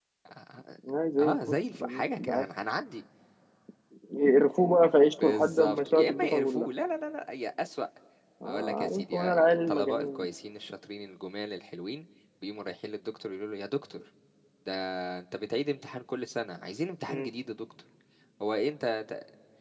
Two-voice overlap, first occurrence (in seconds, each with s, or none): 1.2 s